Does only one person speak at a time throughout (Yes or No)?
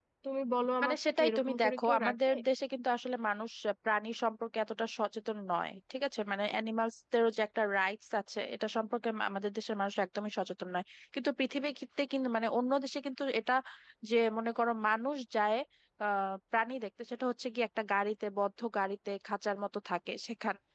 No